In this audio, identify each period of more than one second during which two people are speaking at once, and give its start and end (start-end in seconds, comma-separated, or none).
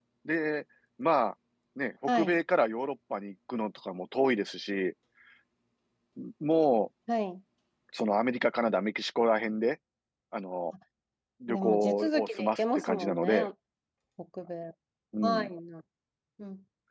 11.5-13.5